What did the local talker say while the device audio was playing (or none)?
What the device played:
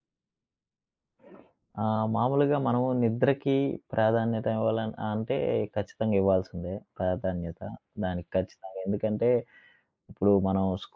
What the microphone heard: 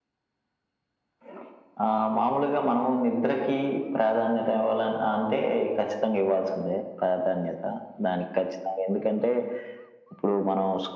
none